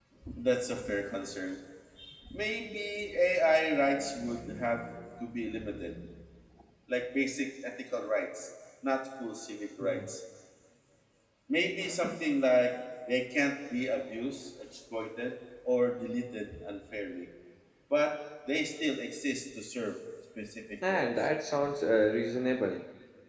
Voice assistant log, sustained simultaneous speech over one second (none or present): none